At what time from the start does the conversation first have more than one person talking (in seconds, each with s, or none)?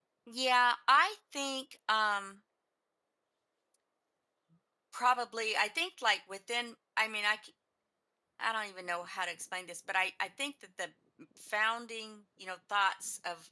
none